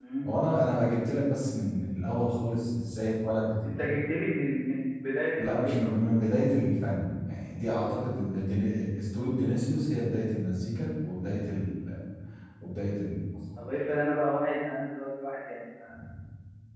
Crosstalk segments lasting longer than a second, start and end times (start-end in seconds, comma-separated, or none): none